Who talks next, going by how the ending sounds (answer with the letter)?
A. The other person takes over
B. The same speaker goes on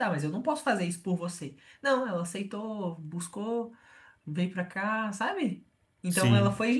B